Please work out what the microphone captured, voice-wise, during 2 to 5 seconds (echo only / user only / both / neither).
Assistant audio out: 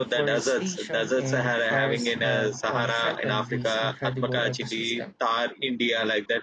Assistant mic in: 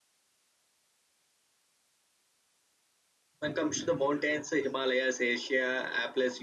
user only